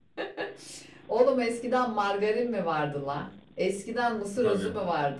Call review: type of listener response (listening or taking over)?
listening